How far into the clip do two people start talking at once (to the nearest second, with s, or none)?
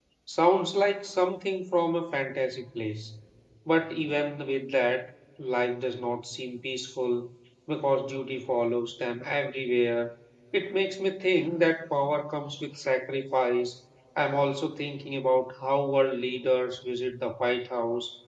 none